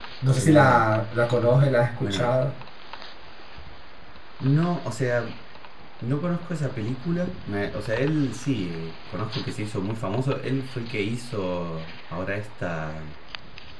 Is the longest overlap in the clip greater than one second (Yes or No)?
No